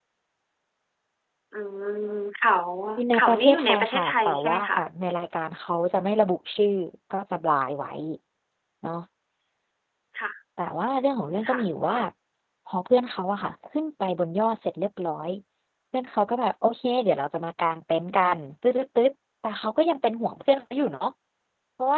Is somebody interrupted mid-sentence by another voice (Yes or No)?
Yes